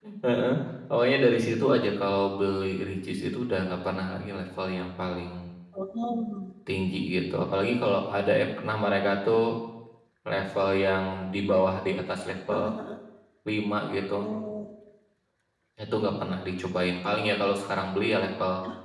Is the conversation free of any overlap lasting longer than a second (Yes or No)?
Yes